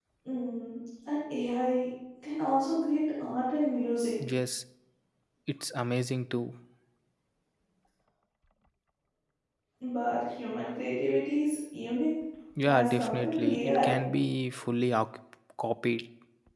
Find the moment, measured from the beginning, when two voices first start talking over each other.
12.7 s

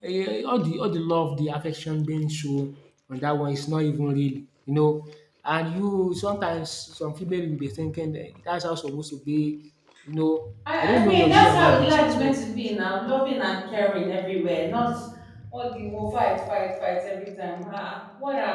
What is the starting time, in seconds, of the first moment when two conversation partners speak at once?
10.7 s

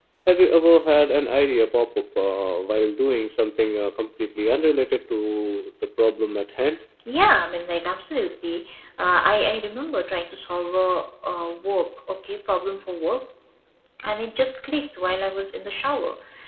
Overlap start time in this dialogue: none

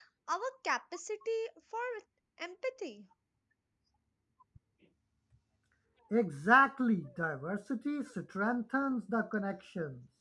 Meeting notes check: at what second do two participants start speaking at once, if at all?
none

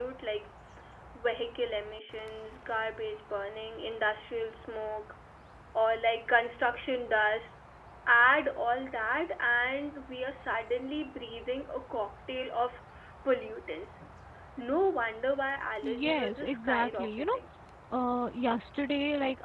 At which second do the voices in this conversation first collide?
15.8 s

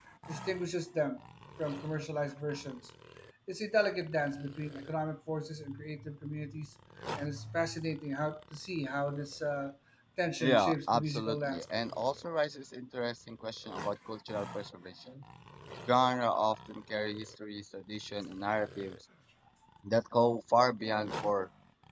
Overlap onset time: 10.4 s

